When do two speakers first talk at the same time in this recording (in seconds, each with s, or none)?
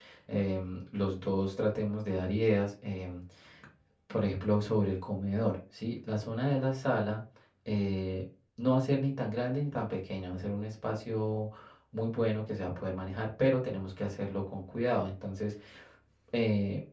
none